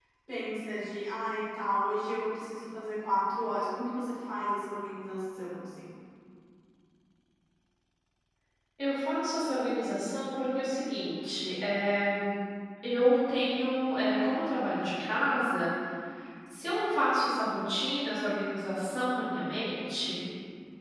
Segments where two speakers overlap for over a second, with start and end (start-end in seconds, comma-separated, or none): none